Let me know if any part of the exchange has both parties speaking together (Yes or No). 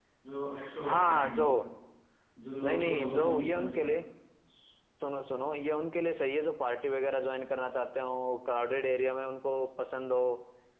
Yes